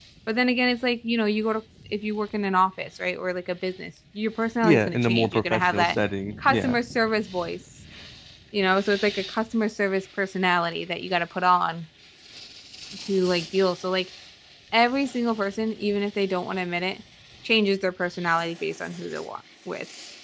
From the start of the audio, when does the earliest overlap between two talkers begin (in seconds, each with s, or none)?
4.6 s